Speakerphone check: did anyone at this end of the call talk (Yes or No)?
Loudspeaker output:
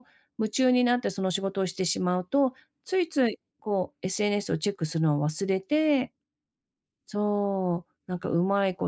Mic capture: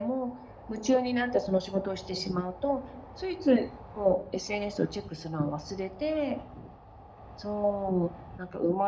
No